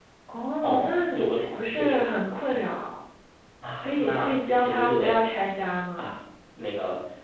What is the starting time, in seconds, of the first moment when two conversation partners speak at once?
0.6 s

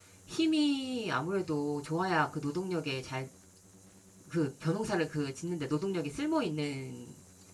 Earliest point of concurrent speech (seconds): none

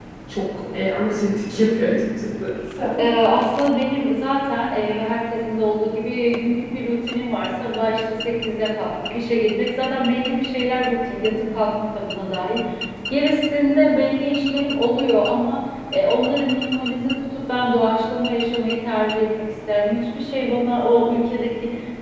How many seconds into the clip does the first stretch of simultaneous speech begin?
none

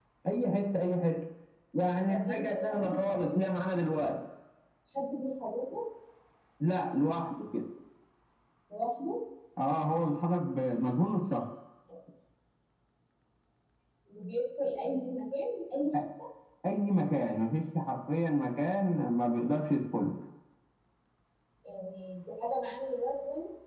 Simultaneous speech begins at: 2.1 s

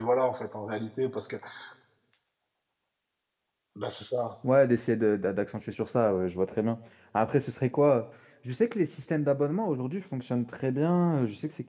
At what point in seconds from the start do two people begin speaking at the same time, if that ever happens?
none

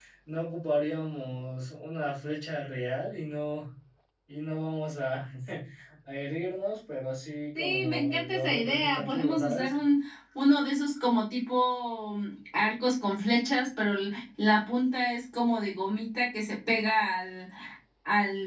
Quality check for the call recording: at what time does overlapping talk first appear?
7.5 s

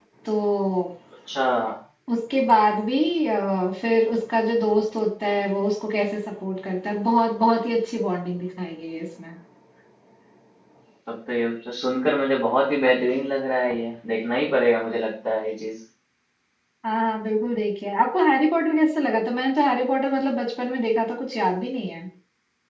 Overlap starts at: none

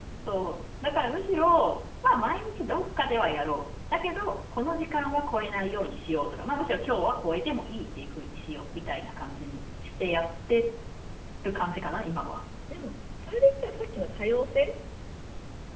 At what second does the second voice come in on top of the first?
none

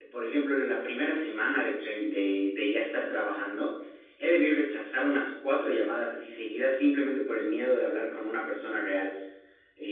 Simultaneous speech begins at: none

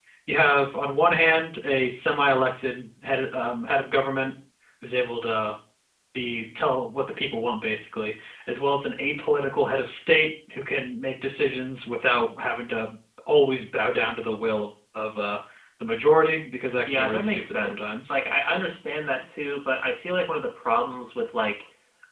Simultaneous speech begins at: 16.9 s

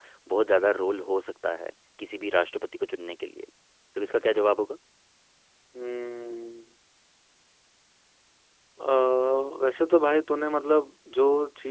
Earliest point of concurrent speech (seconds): none

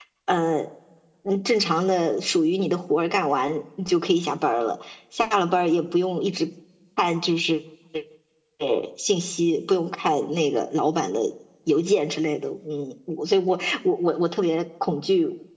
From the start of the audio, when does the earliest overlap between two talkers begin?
none

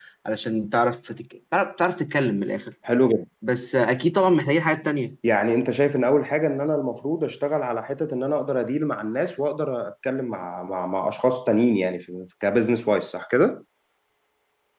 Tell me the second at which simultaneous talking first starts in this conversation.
none

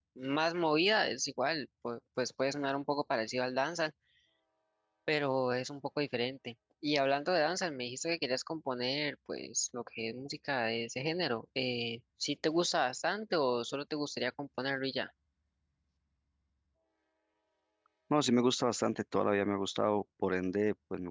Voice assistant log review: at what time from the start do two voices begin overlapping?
none

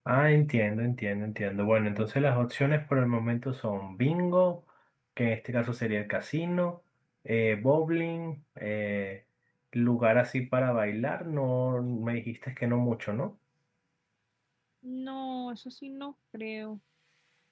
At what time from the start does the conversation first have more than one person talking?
none

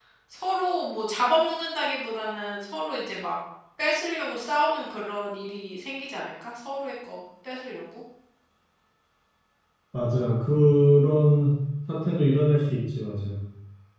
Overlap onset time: none

